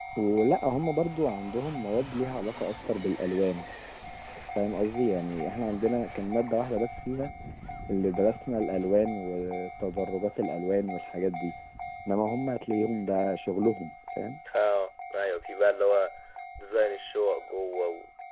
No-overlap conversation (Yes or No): Yes